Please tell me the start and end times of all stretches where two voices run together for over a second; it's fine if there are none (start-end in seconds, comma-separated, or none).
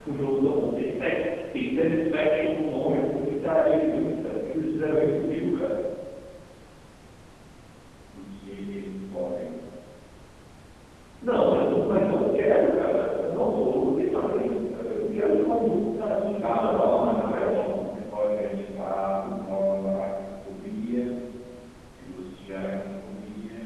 16.4-17.8